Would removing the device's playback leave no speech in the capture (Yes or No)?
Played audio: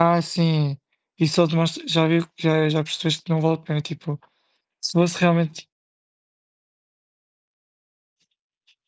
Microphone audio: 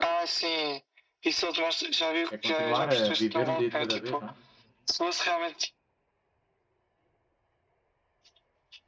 No